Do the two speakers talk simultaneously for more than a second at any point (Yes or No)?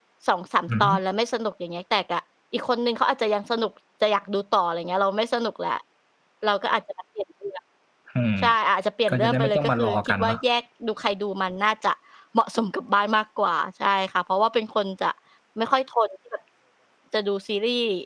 Yes